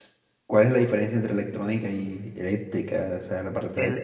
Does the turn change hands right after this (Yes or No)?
Yes